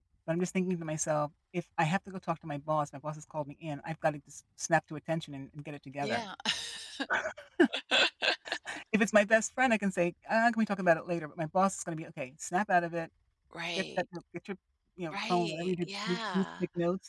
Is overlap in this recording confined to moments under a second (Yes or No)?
No